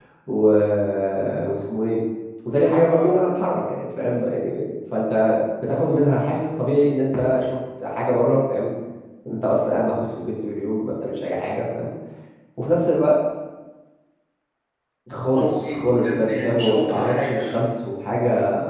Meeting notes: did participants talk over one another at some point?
Yes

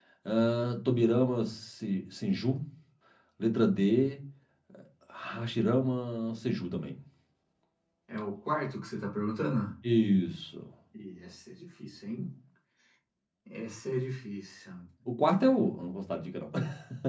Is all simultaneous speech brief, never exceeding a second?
Yes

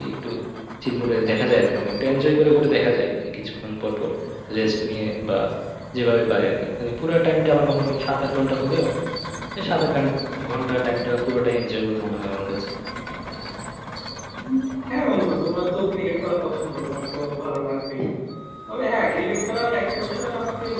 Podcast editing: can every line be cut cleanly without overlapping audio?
Yes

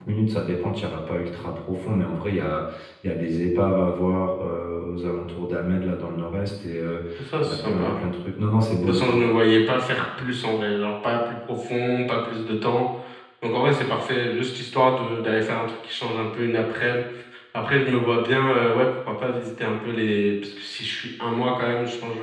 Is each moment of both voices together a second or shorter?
Yes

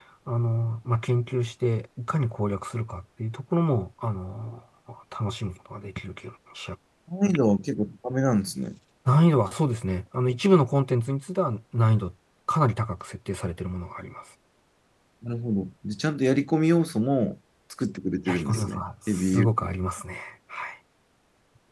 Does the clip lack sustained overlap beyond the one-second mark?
No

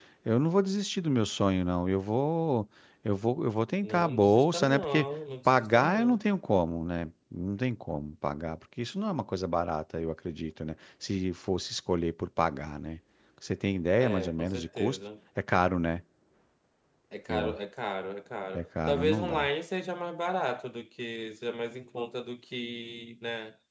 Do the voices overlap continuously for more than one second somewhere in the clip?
Yes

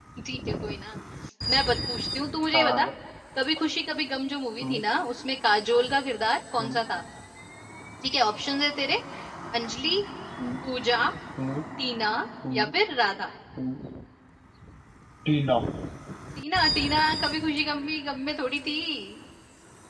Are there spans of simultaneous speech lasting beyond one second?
No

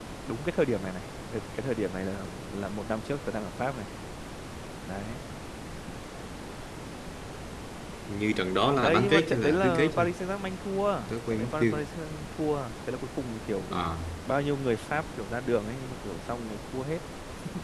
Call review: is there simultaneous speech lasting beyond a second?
Yes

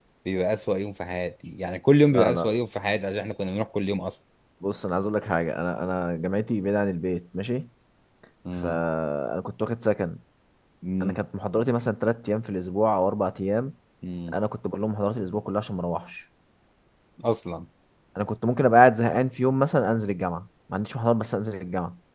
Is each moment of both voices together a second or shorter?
Yes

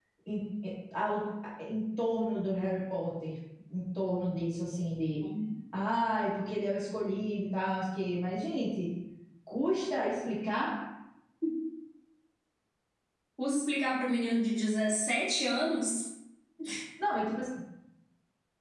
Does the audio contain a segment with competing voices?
No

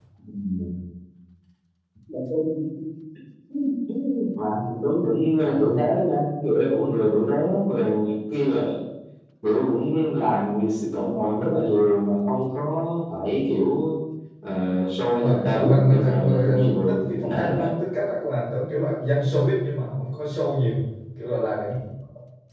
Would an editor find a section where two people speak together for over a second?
Yes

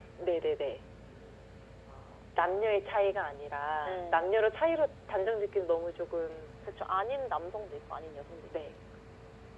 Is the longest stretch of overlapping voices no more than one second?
Yes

